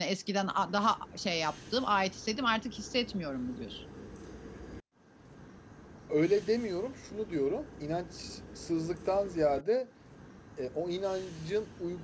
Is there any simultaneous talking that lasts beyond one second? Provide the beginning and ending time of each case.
none

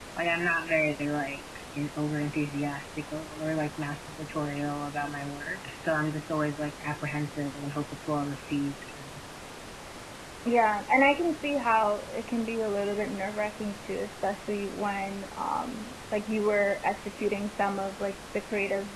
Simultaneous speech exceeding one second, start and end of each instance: none

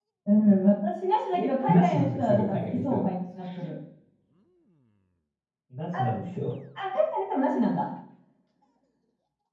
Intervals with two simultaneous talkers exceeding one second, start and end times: 1.3-3.1

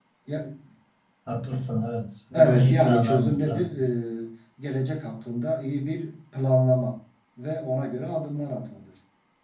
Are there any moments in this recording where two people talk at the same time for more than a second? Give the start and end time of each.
2.3-3.8

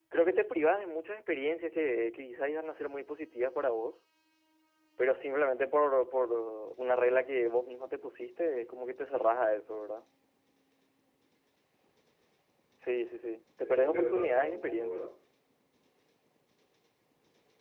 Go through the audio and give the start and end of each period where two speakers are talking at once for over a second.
13.6-15.1

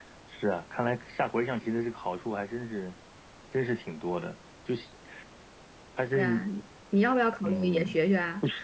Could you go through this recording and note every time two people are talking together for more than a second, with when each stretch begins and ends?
none

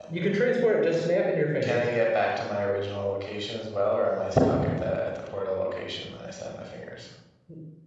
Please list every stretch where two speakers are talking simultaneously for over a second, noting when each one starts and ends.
none

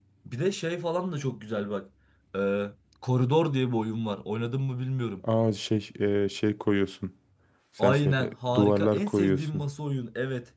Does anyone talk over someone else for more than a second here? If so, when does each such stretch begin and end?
7.8-9.6

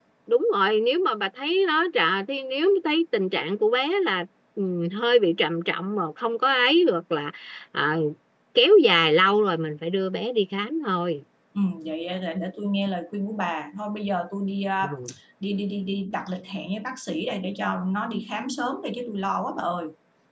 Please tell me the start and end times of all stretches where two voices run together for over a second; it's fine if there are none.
none

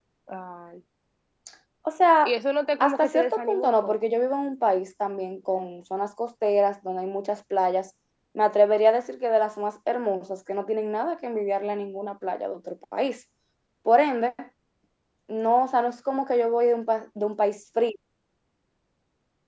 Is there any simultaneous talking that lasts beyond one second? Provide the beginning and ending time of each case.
2.8-4.1

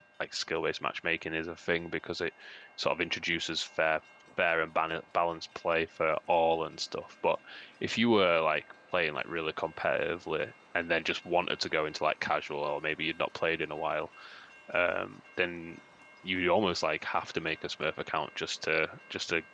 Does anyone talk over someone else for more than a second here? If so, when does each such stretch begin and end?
none

